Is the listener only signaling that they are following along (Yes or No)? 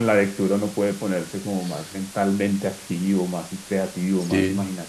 No